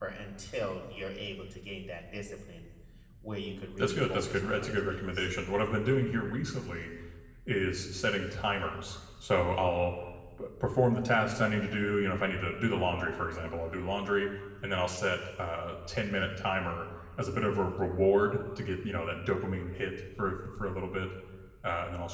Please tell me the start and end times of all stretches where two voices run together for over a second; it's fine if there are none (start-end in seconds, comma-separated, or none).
3.8-5.3